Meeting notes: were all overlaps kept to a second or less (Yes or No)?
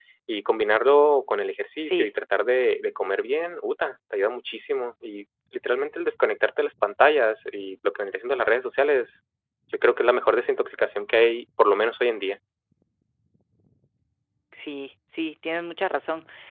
Yes